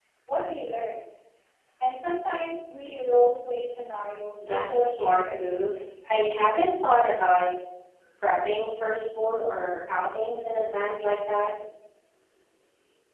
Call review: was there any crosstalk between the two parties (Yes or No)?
Yes